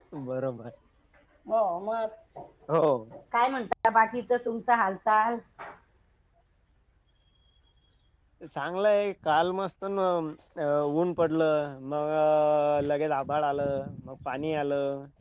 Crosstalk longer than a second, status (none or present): none